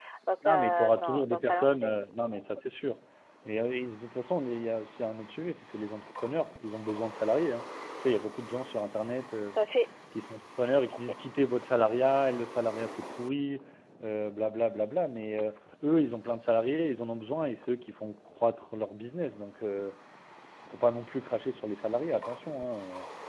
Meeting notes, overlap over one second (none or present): present